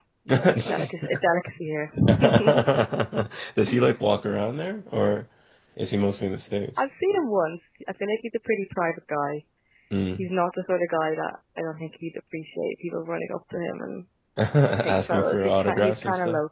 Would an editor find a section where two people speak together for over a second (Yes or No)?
Yes